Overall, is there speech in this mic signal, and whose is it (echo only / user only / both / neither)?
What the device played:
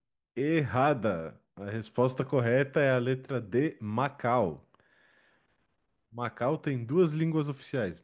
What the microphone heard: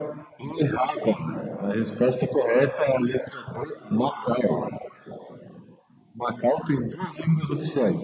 echo only